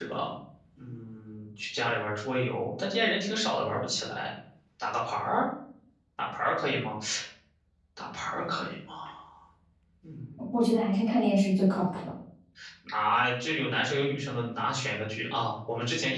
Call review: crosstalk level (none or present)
none